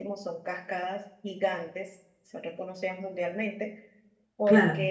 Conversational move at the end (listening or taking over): listening